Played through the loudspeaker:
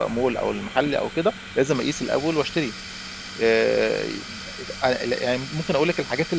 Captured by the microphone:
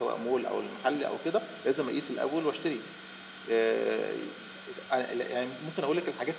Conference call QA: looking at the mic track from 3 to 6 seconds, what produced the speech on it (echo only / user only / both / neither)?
echo only